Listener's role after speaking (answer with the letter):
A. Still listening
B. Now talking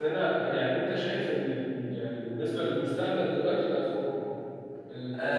B